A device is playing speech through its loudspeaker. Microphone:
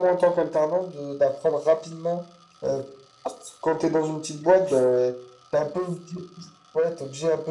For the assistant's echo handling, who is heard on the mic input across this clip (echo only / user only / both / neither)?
echo only